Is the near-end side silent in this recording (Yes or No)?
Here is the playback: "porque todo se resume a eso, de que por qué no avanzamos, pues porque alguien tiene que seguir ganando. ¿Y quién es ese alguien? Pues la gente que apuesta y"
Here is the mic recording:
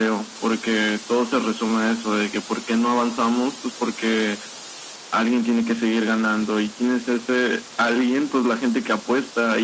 Yes